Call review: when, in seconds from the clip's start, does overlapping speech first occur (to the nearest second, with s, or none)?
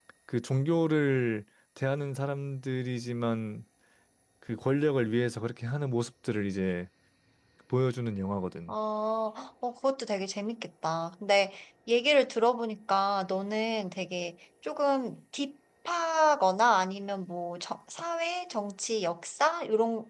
none